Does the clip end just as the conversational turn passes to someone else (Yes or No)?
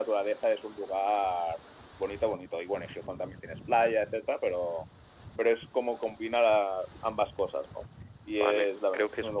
Yes